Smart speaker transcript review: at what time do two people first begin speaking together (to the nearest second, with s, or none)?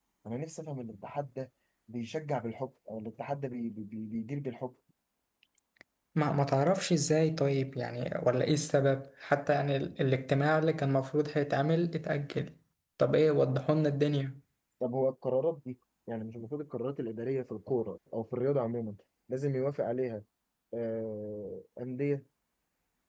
none